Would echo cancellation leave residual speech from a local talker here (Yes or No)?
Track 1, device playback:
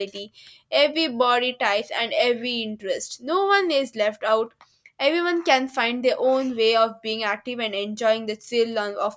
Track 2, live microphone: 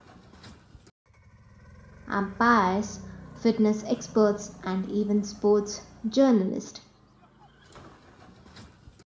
Yes